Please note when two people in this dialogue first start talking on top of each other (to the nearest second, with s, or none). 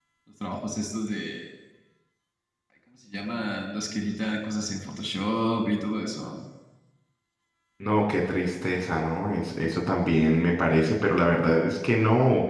none